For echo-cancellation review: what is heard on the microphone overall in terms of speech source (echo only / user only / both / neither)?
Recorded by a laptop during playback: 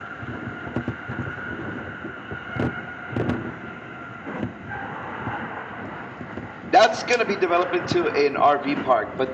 user only